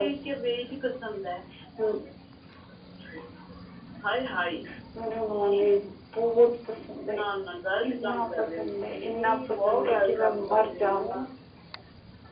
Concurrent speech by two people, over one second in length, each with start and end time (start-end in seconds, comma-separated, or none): 7.8-11.2